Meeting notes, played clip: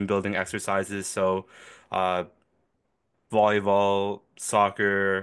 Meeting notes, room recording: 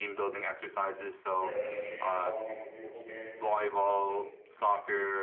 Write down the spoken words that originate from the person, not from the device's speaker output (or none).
bear any shame calling it the beautiful game because I, I think it's